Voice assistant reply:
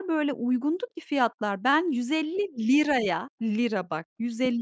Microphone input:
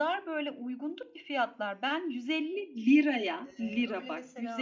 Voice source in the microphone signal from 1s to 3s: echo only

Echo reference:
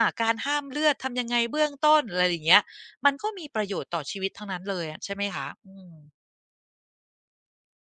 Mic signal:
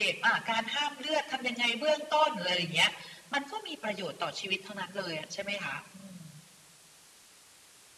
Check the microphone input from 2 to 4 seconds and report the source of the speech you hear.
echo only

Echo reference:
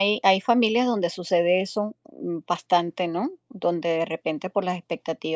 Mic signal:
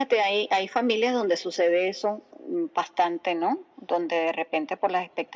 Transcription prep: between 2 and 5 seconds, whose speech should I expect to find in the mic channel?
echo only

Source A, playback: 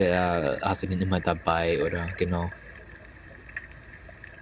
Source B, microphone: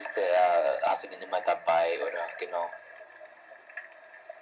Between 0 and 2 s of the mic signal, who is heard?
echo only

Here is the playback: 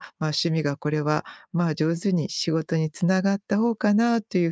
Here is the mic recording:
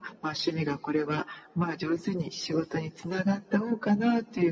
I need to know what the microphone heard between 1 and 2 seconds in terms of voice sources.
echo only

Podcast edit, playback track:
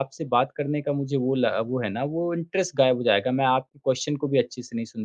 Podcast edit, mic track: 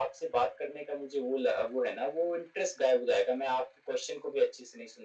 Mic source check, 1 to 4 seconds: echo only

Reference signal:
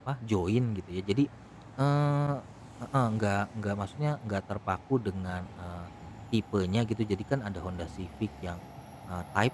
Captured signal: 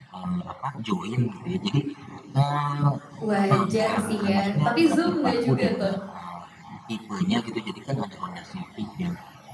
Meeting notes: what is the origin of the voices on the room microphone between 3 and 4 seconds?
both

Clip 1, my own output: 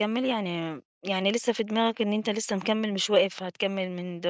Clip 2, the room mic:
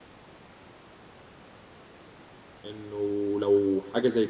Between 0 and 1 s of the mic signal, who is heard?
neither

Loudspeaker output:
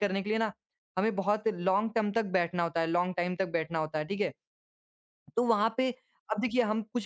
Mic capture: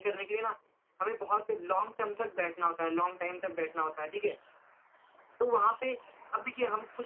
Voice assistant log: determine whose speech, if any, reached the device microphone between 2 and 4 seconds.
echo only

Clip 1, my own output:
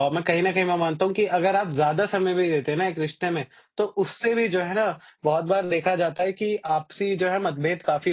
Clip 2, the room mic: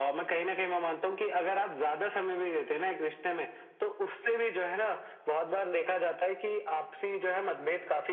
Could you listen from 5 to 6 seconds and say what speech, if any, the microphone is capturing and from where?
echo only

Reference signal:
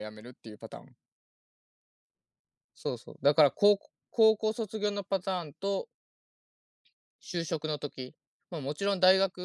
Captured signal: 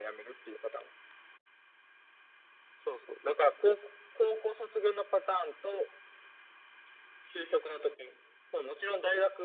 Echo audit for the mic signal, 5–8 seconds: echo only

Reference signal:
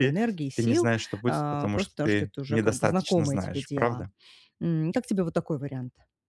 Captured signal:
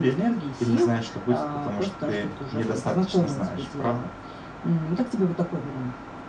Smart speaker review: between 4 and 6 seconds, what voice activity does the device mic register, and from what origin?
echo only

